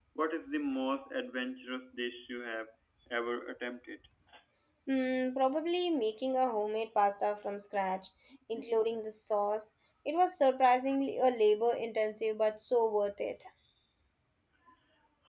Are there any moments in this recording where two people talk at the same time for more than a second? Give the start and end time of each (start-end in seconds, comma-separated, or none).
none